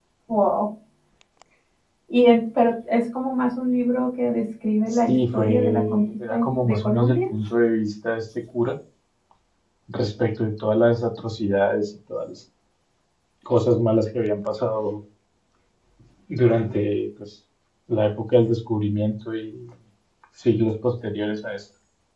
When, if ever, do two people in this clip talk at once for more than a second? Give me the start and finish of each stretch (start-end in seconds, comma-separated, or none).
4.9-7.2